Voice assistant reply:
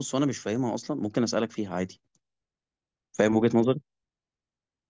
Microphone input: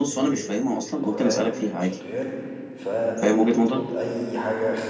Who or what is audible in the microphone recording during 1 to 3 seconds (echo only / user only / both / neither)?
both